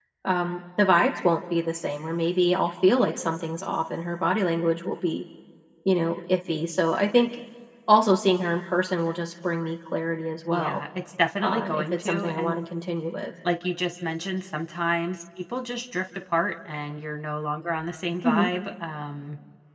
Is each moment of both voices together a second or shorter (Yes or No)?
No